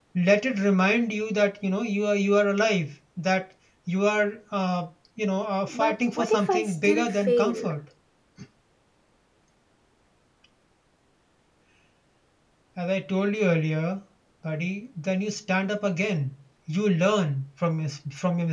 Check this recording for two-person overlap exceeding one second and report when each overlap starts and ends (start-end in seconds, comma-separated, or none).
5.7-7.7